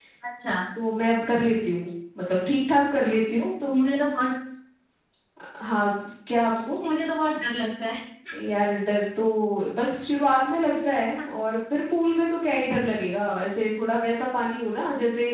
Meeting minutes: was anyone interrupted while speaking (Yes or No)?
No